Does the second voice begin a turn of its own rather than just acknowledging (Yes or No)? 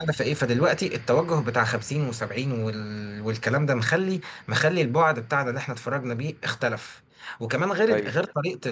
No